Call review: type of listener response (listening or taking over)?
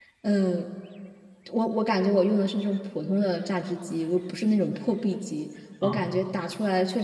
listening